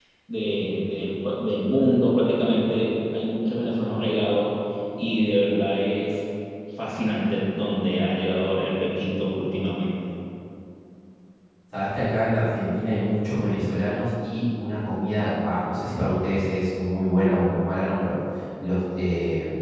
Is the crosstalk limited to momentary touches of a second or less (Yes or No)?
Yes